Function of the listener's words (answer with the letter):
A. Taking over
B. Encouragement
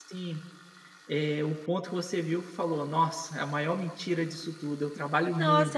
A